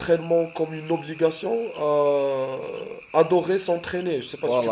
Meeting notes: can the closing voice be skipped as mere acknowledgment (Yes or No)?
No